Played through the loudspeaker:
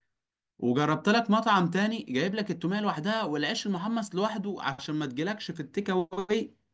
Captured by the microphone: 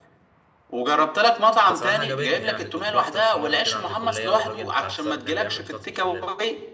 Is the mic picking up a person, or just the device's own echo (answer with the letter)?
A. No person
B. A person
B